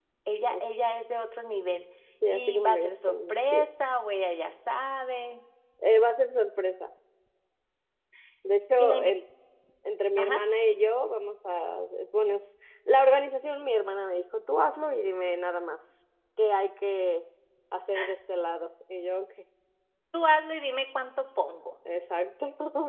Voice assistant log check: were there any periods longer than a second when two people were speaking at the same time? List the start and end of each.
2.4-3.6

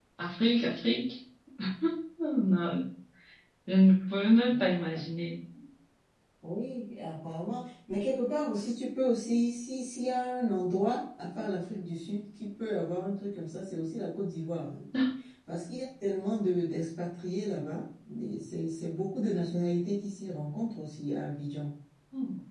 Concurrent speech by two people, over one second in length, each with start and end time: none

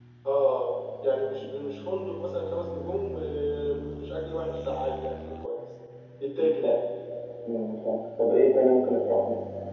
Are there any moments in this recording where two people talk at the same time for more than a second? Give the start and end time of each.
none

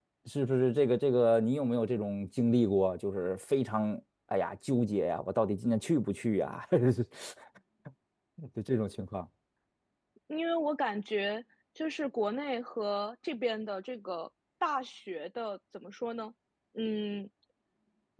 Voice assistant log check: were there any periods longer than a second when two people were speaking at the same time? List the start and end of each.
none

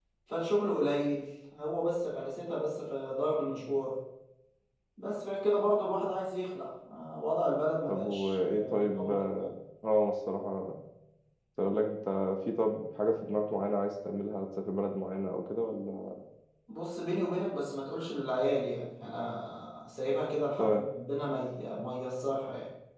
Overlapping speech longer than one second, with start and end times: 7.9-9.2

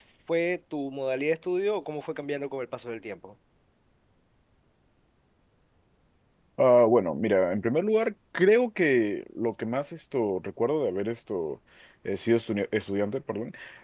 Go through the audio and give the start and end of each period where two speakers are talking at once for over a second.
none

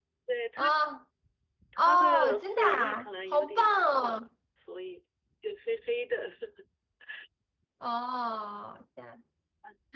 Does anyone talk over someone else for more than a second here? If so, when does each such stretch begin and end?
1.8-4.2

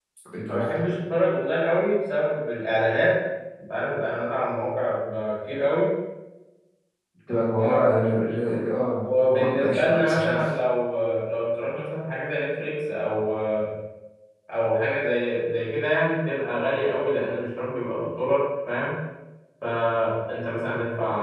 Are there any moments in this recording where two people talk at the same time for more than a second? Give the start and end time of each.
9.0-10.6

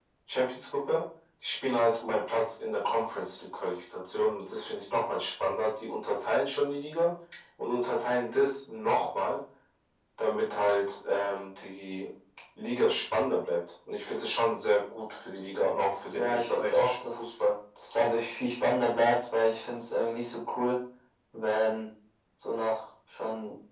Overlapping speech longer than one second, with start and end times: 16.1-17.5

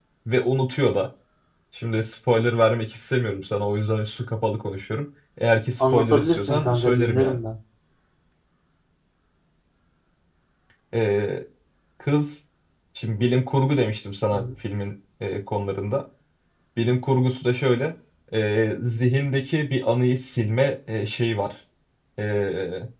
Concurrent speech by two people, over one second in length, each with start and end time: 5.8-7.4

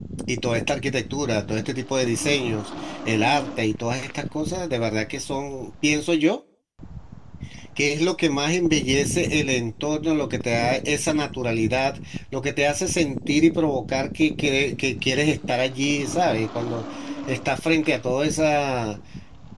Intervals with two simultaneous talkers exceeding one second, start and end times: none

